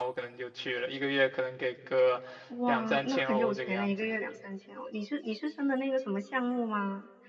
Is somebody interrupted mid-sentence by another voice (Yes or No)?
Yes